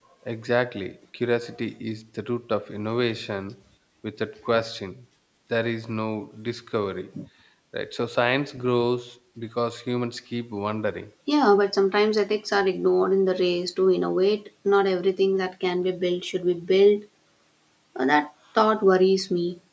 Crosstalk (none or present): none